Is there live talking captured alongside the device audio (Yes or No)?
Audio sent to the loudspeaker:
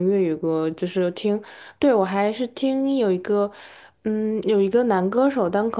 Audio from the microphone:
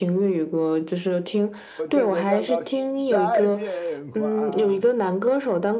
Yes